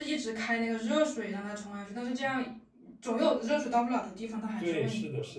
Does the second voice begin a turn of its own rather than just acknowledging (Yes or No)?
Yes